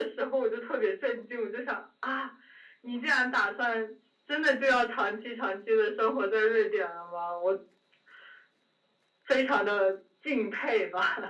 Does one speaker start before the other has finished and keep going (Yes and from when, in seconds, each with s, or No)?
No